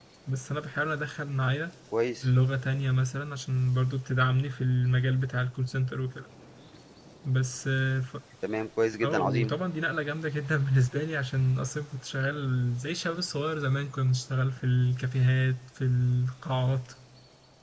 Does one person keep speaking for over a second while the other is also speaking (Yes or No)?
No